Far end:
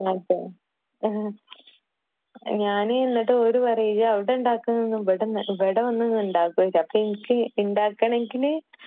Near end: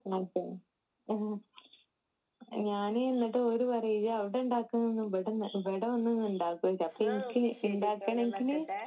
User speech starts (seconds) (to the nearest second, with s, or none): 7 s